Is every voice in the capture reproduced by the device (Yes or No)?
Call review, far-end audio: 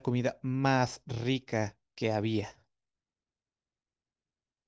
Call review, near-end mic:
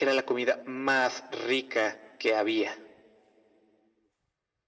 Yes